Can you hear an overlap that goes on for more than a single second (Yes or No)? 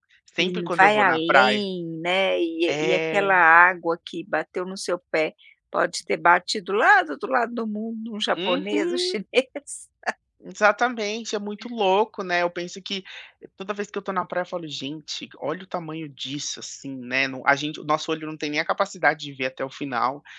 Yes